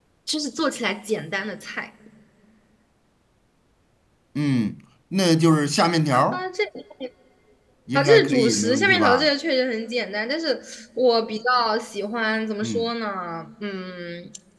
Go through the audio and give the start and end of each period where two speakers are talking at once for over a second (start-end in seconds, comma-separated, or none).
8.0-9.3